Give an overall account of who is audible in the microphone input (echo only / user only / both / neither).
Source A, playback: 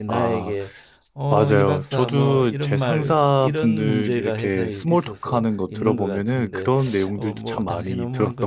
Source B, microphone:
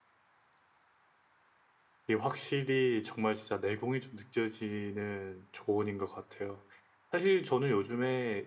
user only